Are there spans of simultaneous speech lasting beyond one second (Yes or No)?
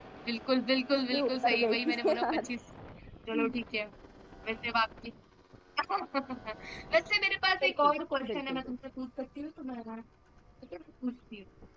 Yes